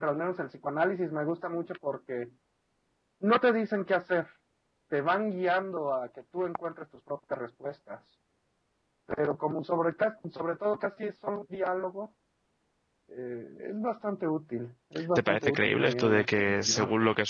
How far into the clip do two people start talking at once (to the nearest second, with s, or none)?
15 s